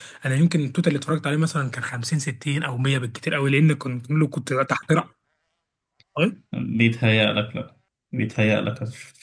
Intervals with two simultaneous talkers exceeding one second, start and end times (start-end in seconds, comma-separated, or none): none